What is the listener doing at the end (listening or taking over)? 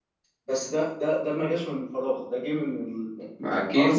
taking over